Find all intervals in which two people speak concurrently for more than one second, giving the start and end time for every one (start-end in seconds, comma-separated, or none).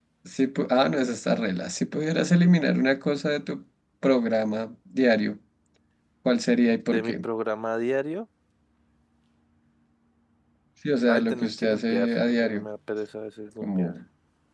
11.1-12.6